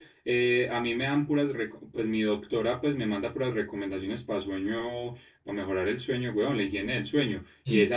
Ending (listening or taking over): listening